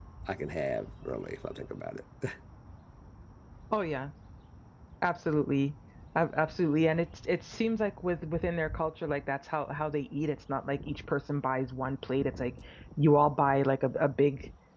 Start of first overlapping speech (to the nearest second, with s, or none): none